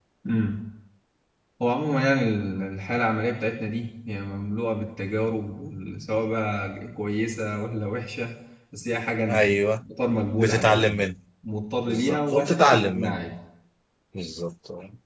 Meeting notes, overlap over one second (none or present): present